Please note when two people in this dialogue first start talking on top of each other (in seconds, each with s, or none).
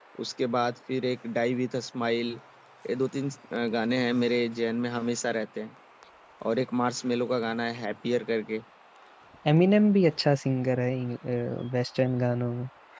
none